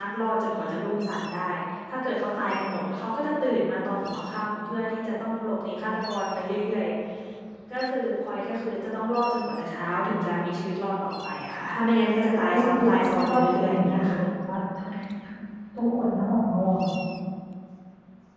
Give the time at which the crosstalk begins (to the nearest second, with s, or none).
12 s